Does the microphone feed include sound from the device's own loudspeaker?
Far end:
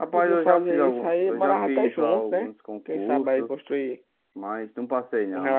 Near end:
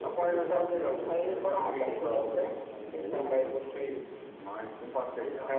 Yes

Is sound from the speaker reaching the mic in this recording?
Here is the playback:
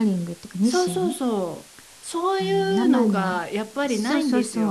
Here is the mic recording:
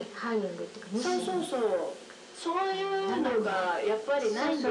Yes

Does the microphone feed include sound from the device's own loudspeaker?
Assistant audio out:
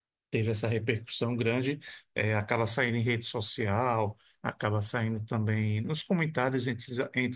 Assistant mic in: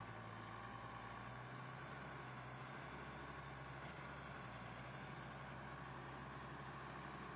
No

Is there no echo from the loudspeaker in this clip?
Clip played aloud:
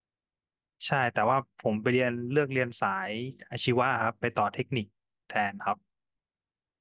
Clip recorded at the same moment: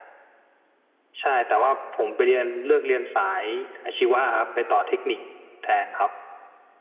No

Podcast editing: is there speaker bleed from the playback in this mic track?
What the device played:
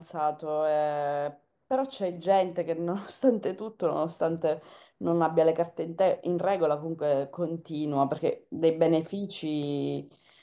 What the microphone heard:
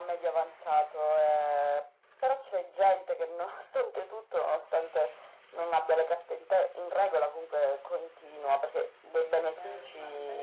Yes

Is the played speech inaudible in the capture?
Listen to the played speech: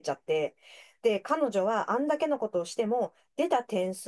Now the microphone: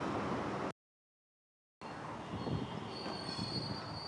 Yes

